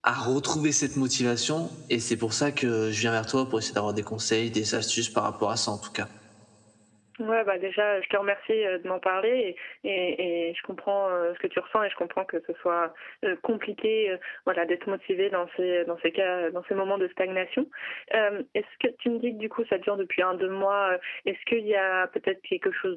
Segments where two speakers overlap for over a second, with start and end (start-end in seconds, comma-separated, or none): none